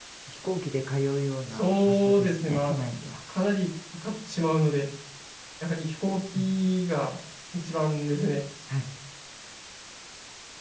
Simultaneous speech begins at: 2 s

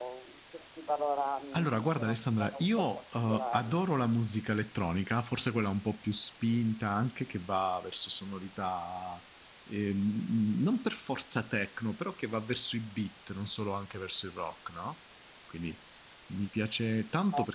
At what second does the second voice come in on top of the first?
2 s

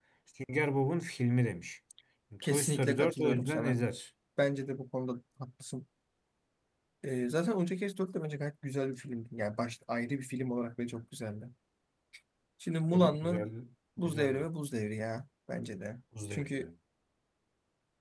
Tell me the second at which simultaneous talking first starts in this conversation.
2 s

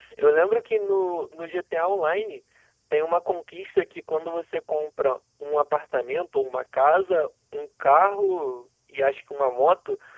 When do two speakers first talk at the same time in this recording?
none

